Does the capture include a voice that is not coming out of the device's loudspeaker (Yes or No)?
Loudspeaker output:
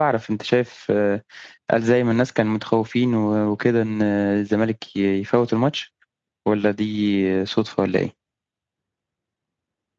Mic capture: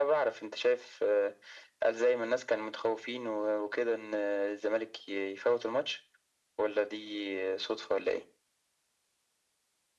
No